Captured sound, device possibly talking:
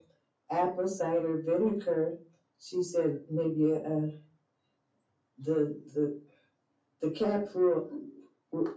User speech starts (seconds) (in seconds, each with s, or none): none